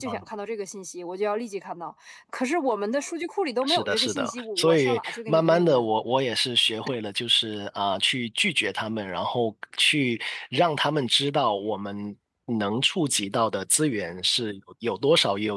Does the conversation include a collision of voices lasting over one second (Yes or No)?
Yes